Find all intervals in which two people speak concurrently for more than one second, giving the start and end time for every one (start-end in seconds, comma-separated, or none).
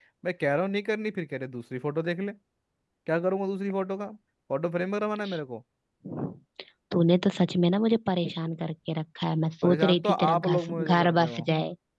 9.6-11.5